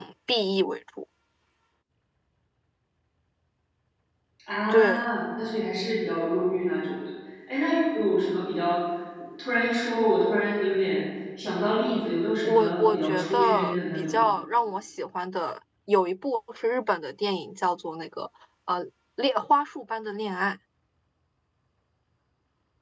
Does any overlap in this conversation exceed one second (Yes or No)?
Yes